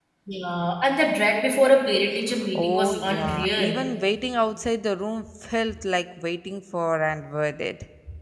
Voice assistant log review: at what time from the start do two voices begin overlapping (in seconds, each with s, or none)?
2.5 s